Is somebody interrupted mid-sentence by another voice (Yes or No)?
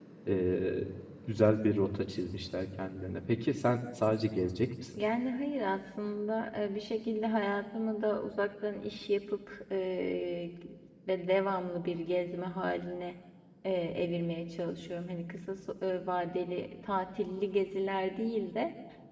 No